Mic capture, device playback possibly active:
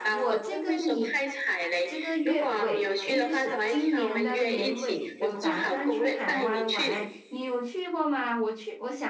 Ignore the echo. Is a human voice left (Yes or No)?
Yes